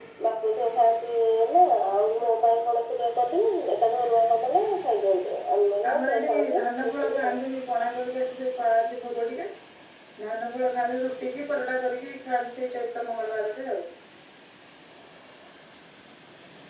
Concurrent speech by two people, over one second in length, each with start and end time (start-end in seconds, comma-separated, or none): 5.9-7.3